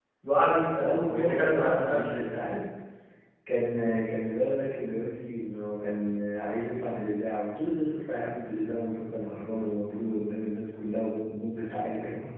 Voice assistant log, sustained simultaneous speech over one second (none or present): present